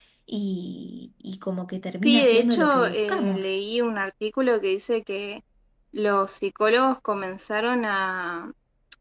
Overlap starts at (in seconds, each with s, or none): 2.0 s